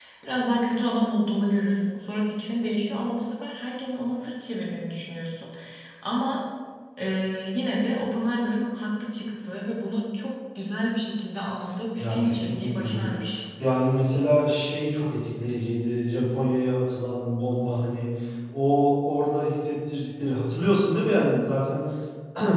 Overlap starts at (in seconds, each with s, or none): 12.0 s